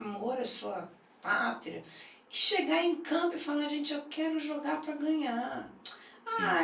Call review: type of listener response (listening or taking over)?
listening